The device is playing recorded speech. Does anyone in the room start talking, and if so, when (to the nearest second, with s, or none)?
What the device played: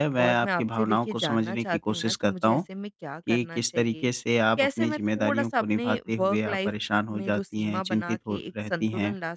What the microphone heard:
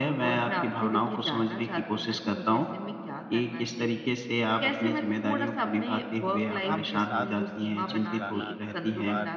7 s